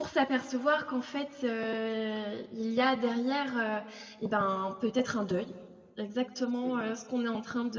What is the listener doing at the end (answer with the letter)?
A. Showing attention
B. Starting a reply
A